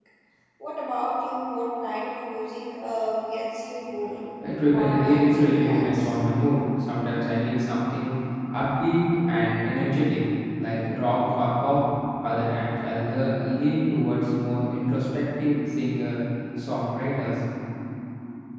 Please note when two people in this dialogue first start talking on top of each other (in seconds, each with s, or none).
4.7 s